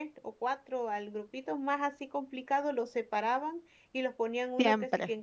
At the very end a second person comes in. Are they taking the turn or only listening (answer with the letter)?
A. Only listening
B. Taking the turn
A